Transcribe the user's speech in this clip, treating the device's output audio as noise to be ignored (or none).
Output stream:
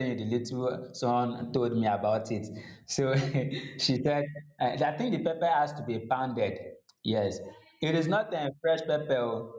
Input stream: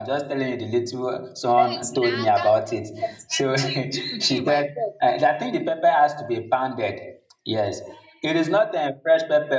wait na calm down first calm chill chill chill my friend